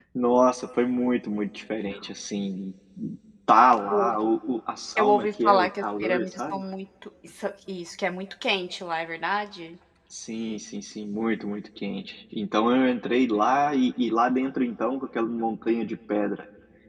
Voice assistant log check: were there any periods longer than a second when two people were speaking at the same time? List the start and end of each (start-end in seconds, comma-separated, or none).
5.0-6.6